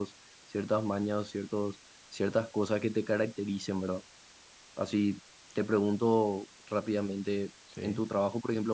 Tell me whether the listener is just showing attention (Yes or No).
Yes